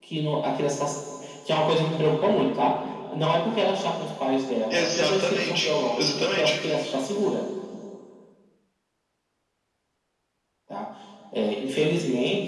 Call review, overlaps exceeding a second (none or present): present